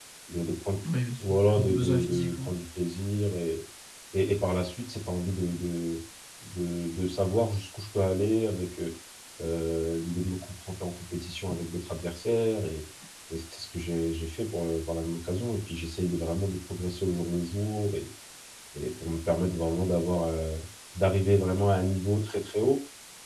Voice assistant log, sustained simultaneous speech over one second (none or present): present